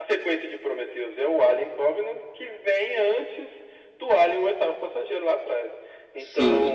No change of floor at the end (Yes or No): No